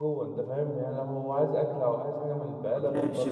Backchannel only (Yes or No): No